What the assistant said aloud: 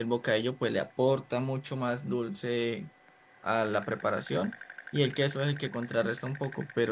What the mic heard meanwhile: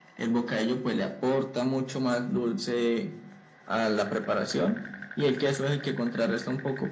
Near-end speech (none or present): none